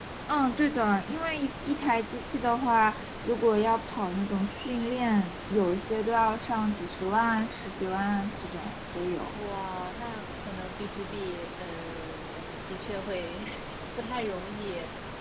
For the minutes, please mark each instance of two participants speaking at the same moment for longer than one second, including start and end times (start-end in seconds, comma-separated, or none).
none